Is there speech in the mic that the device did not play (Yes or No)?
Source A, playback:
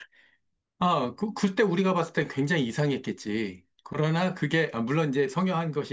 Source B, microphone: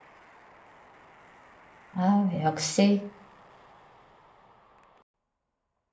Yes